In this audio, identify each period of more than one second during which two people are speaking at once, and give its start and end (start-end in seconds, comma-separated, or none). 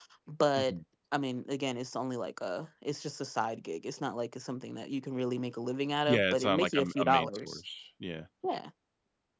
6.1-7.6